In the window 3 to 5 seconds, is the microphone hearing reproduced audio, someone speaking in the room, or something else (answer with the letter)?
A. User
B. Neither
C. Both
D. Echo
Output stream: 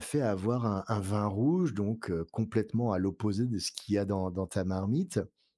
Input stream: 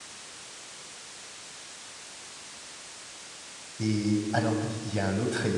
A